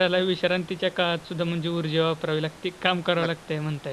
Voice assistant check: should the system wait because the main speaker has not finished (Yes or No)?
No